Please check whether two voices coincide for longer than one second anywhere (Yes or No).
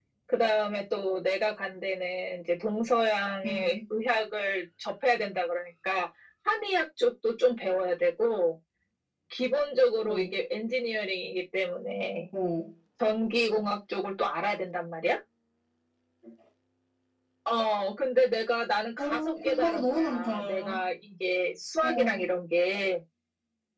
Yes